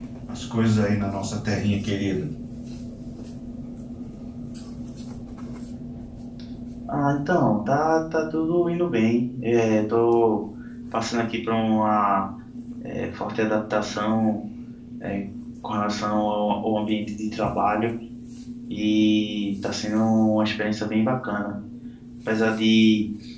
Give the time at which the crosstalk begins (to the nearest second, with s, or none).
none